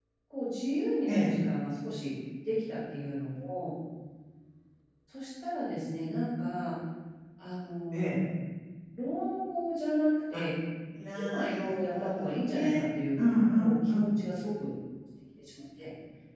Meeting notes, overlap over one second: present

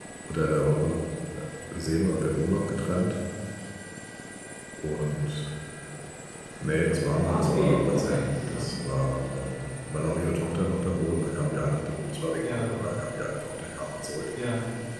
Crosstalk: present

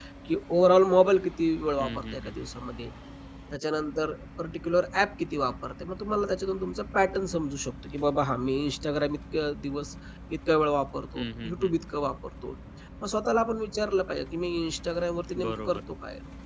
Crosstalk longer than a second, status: none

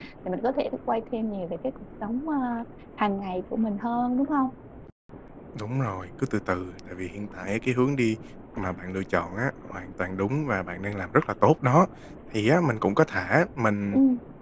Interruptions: none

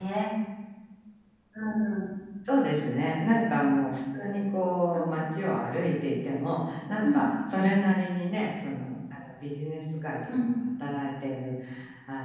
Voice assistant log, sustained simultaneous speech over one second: none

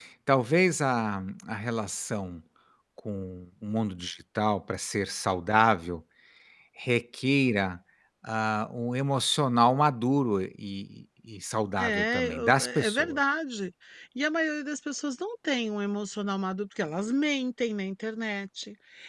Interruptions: present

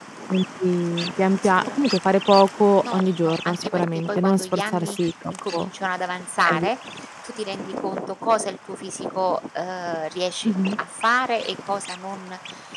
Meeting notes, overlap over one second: present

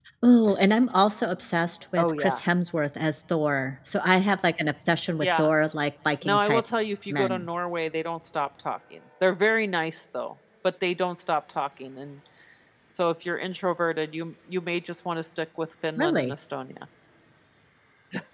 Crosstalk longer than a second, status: none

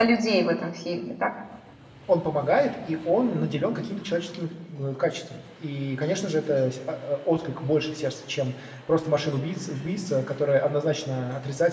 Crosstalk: none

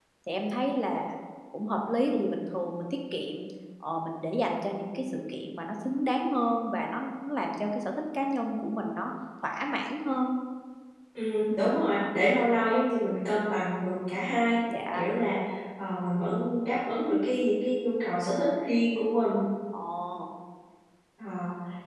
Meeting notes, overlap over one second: none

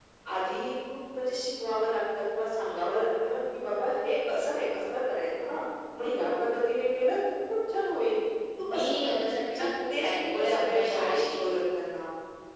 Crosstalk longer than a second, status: present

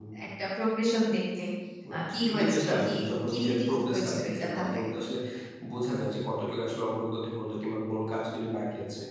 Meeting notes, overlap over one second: present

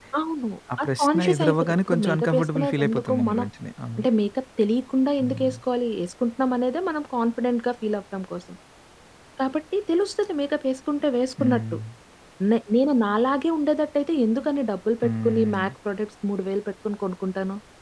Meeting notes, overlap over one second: present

